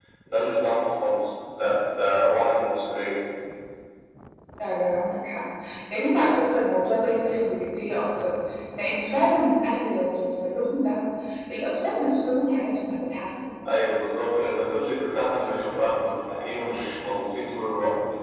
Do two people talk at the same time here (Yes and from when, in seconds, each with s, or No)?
No